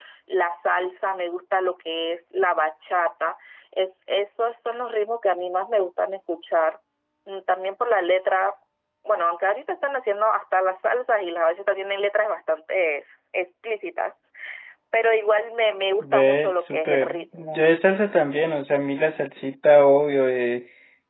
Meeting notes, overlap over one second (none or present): present